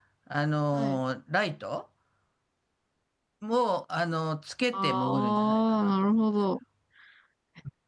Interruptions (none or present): present